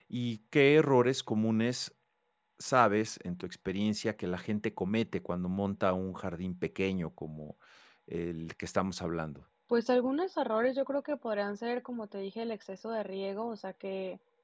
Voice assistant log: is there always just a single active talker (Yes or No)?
Yes